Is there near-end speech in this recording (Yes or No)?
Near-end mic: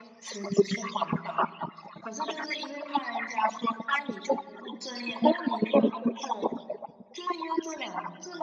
No